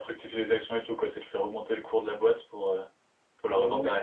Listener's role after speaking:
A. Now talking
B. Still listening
A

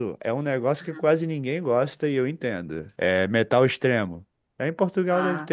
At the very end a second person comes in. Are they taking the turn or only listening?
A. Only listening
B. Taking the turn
A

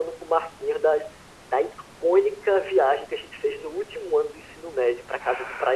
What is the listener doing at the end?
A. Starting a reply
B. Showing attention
A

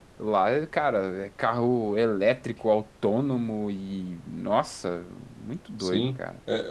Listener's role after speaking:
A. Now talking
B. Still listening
A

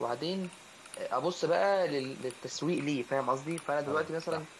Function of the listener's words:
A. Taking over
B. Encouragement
B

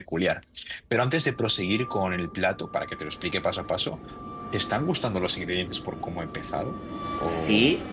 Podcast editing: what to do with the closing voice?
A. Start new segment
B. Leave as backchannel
A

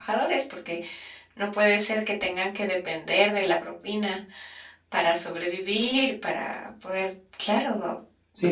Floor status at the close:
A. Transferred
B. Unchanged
A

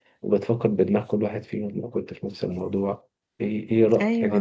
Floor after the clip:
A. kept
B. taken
A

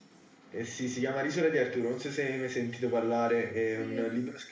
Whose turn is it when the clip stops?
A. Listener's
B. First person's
B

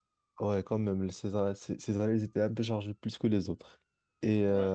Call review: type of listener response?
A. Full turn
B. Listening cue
B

